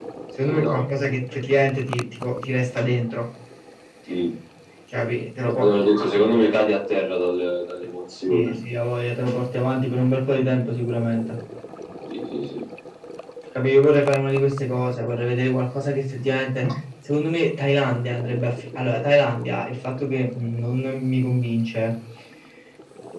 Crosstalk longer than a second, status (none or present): none